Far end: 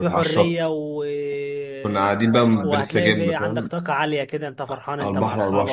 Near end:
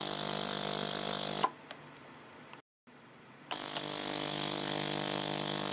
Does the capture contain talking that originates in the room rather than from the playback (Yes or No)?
No